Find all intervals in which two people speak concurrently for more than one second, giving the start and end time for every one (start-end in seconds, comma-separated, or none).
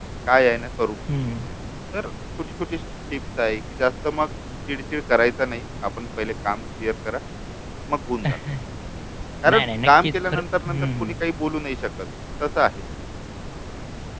9.5-11.1